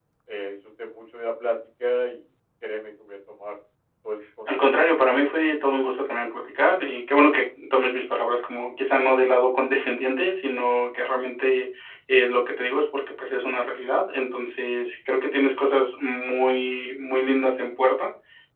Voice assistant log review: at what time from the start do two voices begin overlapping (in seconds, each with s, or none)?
4.5 s